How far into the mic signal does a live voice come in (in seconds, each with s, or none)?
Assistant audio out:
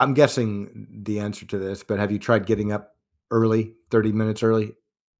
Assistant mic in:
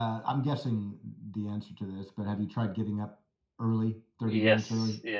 4.2 s